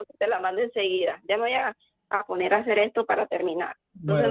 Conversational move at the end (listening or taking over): taking over